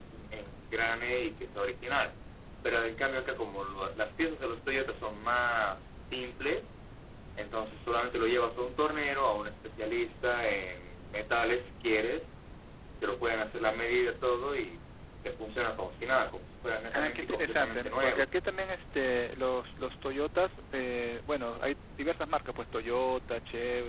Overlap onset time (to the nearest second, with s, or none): 17 s